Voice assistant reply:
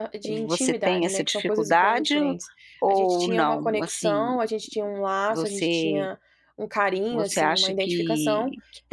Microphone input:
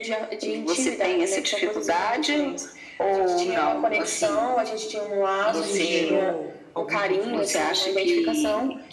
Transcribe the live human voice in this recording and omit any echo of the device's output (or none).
isso gerou algum conflito?